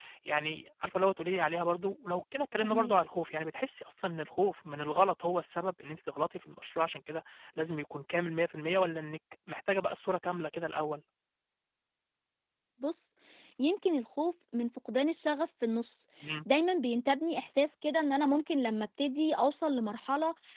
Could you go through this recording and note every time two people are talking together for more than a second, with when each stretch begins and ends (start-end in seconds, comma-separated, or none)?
none